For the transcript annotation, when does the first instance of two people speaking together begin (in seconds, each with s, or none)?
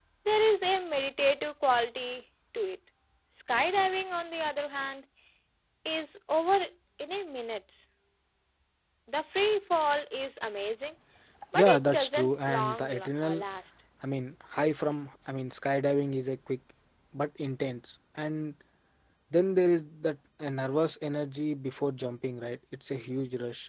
11.6 s